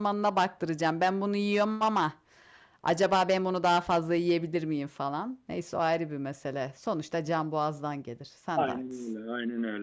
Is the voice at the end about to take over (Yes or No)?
Yes